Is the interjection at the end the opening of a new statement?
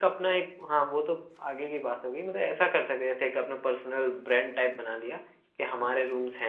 No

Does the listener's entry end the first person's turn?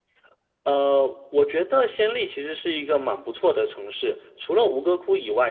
No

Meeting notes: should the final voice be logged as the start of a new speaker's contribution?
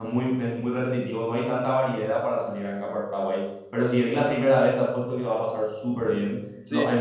No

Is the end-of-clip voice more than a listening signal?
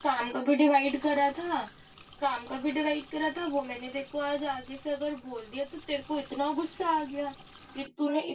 Yes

